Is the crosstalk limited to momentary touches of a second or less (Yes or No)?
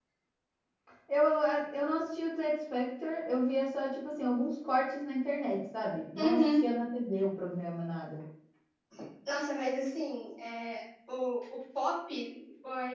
Yes